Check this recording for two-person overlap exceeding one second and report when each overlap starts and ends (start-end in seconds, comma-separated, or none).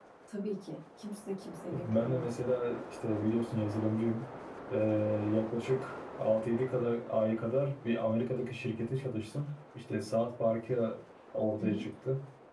none